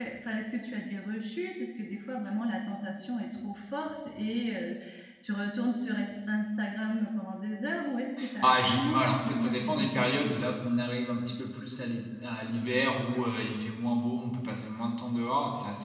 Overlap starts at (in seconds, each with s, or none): 8.2 s